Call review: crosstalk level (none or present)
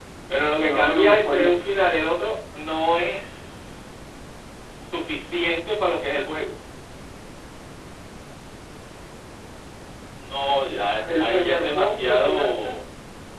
present